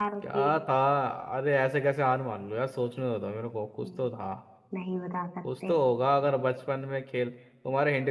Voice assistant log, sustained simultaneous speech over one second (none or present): none